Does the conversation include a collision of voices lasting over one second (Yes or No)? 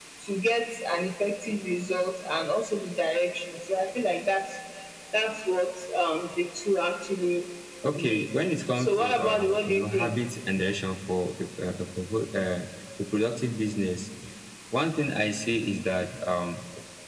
Yes